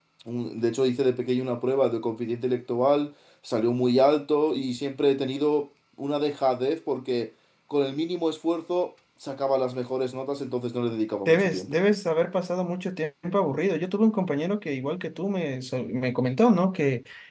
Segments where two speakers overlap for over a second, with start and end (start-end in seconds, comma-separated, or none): none